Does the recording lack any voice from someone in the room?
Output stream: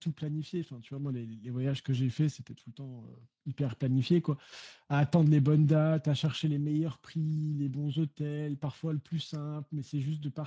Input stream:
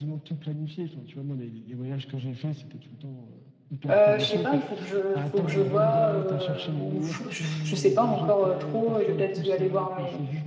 No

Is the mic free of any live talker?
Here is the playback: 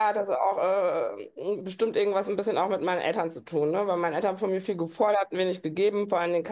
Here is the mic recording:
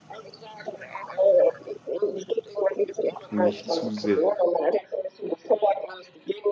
No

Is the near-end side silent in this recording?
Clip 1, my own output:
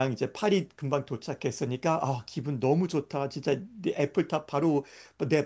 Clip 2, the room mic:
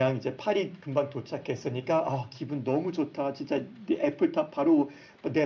Yes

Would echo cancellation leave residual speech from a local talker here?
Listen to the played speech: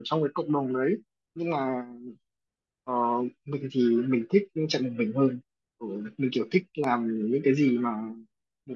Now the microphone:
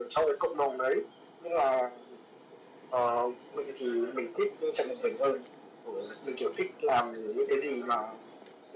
No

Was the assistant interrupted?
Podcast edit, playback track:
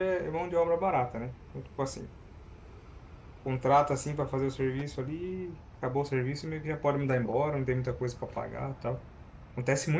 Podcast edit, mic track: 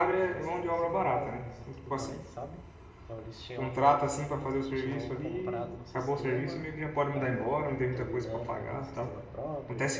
Yes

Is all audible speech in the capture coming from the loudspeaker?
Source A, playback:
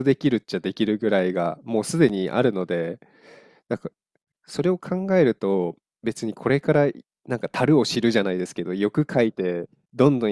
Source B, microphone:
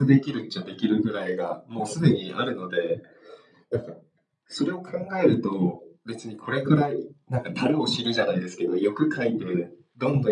Yes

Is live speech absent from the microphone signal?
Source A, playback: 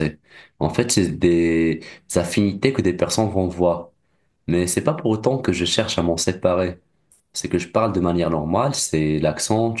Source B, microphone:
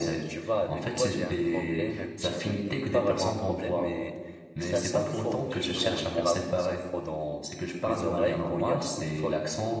No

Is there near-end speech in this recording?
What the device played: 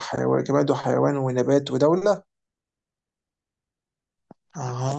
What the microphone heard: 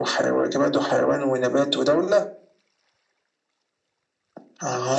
No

